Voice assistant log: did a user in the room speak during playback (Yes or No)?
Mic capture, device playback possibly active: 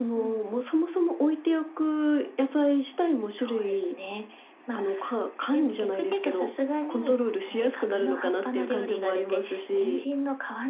No